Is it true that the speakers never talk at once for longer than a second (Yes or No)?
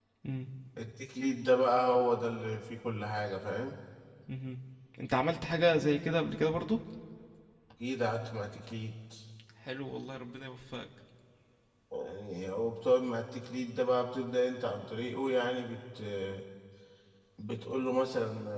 Yes